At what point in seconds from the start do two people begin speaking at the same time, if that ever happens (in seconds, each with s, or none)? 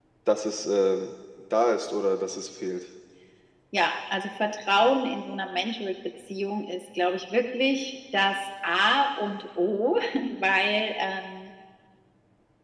none